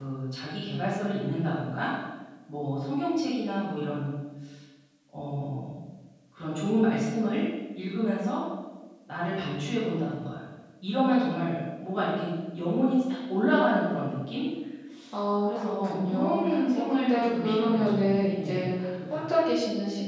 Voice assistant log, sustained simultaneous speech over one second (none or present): present